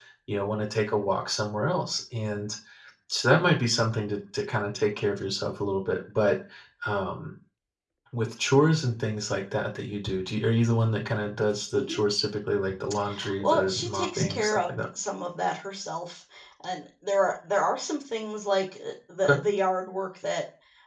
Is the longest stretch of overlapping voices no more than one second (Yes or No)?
No